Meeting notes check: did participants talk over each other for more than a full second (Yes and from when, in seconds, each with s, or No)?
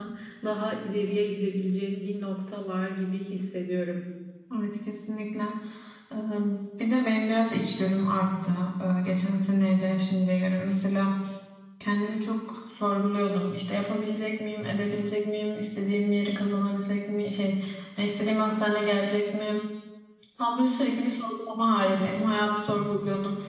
No